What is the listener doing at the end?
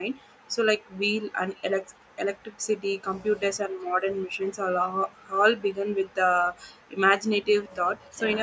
listening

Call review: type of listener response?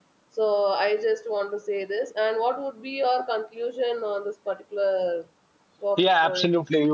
taking over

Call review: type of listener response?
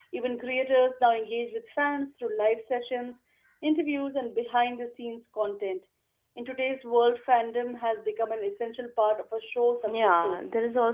taking over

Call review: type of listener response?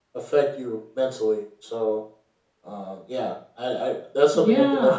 taking over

